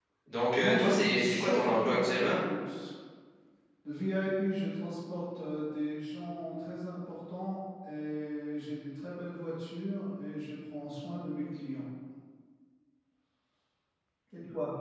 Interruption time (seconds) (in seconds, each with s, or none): 0.6 s